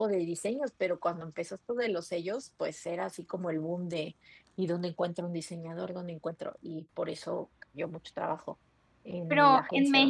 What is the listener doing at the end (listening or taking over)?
taking over